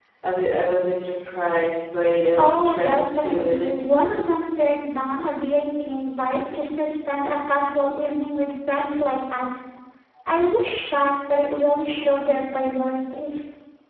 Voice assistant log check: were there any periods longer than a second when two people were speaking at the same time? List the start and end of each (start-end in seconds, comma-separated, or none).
2.4-4.0